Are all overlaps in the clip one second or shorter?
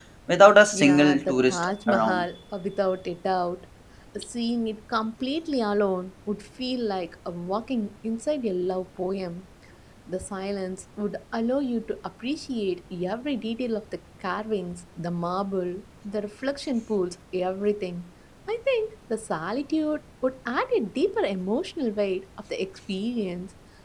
No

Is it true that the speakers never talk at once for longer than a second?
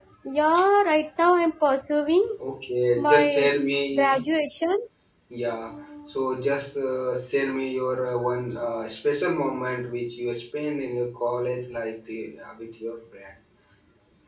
Yes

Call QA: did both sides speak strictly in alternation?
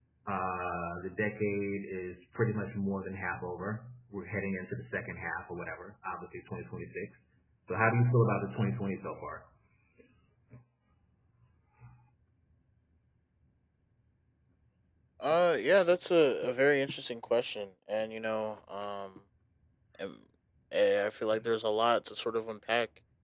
Yes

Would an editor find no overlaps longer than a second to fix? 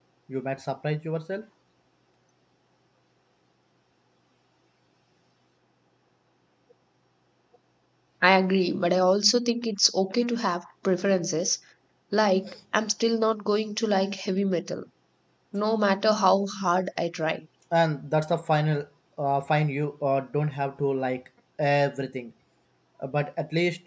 Yes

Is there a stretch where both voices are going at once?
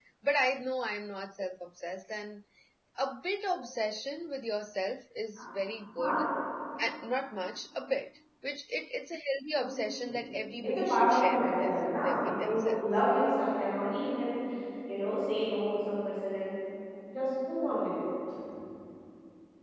Yes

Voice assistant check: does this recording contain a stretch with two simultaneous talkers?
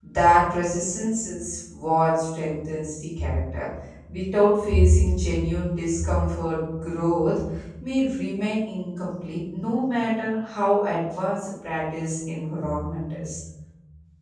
No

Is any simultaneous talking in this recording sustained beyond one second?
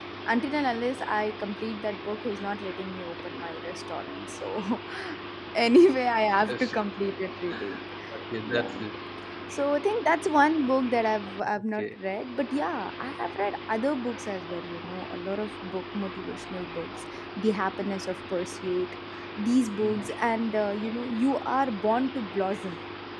No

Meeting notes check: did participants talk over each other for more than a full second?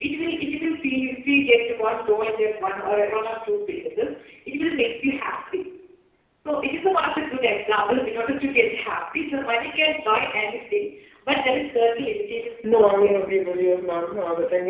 No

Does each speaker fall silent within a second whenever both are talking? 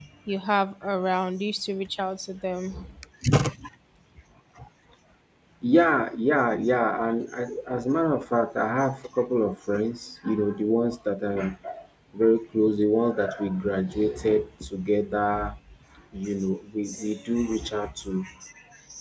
Yes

